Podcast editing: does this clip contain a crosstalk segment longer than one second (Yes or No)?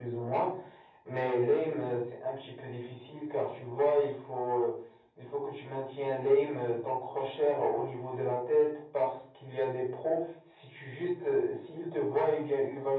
No